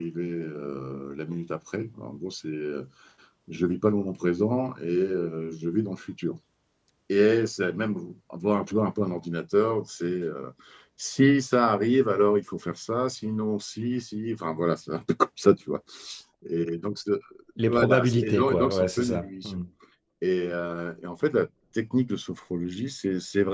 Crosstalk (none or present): present